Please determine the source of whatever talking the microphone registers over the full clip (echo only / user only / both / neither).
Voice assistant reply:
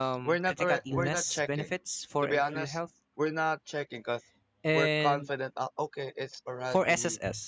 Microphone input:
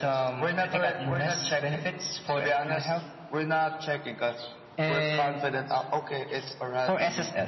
echo only